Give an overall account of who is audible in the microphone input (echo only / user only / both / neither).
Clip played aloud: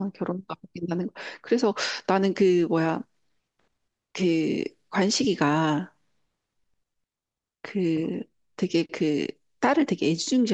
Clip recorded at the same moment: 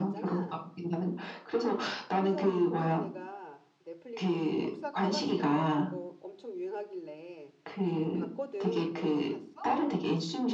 both